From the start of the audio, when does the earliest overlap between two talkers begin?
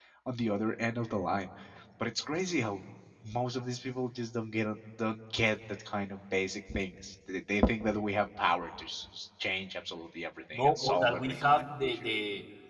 11 s

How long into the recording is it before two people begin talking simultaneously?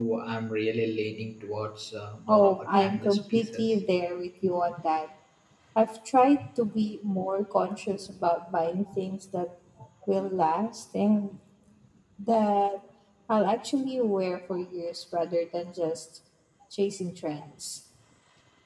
2 s

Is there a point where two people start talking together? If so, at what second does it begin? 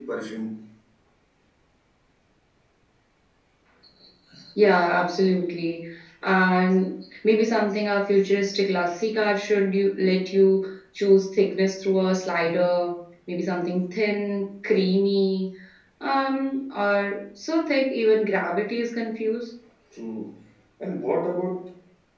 none

